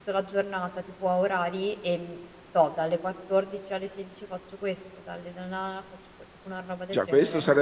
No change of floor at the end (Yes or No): No